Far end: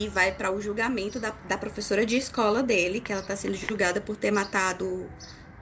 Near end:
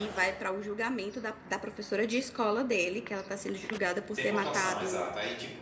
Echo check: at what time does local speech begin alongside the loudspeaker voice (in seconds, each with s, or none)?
4.1 s